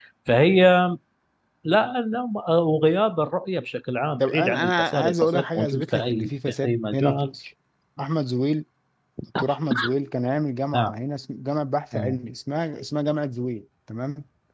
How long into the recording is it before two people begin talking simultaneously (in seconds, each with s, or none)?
4.2 s